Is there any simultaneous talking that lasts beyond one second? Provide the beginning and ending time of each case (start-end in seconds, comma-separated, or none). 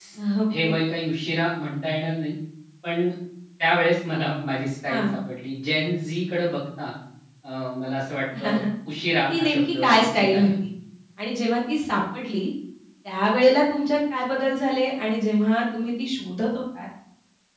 9.1-10.5